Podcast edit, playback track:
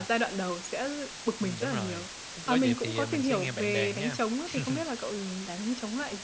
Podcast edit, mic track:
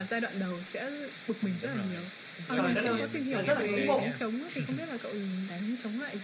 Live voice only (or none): trời đất ơi, à, rất là ngưỡng mộ!